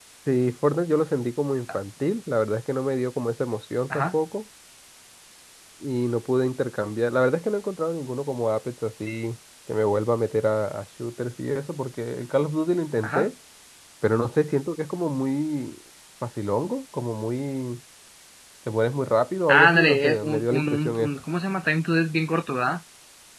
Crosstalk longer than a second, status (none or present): present